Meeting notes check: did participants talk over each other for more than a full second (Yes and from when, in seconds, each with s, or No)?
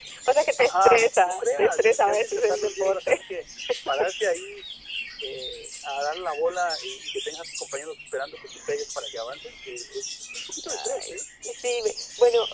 Yes, from 0.6 s